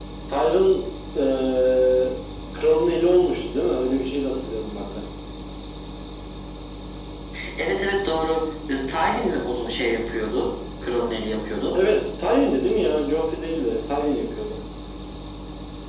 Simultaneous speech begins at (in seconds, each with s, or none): none